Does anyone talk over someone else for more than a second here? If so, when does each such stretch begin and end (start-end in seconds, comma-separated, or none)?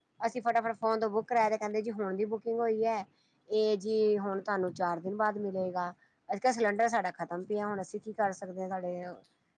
none